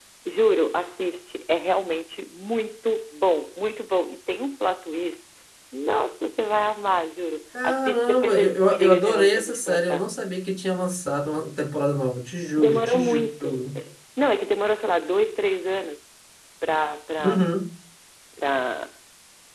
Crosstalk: present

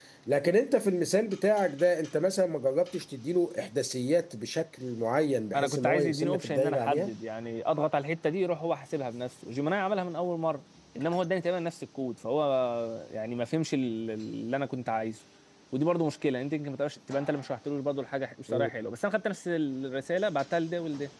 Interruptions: present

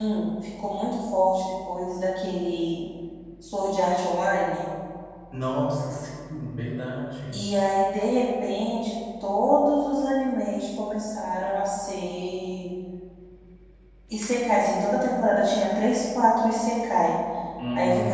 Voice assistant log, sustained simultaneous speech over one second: none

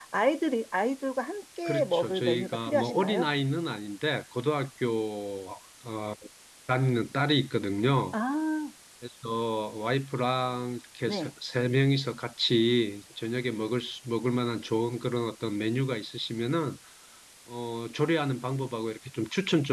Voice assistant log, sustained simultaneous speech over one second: present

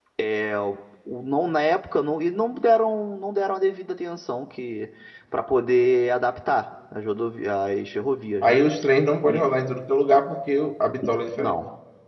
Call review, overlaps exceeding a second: none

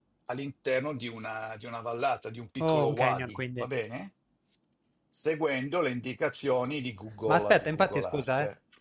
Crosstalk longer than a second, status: present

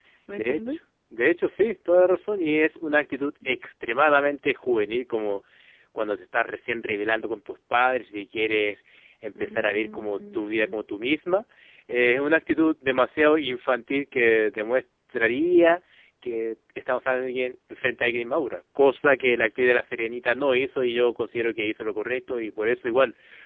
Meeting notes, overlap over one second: present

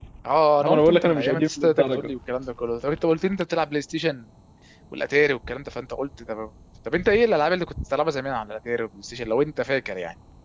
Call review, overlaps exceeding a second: present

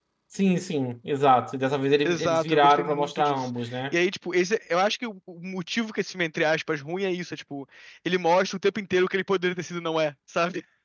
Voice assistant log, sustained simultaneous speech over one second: present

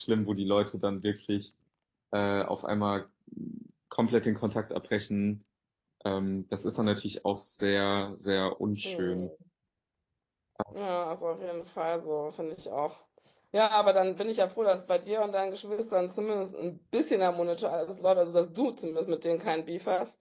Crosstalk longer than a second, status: none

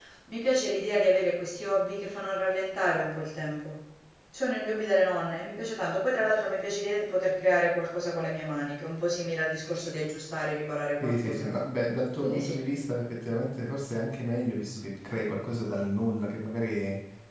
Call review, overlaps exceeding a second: none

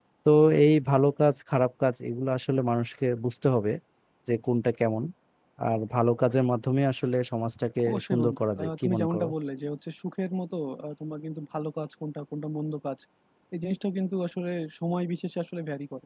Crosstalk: present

